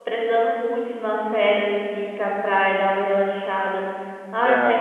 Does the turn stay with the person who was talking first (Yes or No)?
Yes